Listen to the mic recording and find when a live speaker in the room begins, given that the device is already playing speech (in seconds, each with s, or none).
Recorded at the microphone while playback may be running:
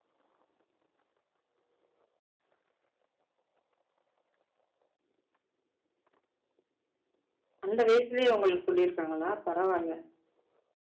7.6 s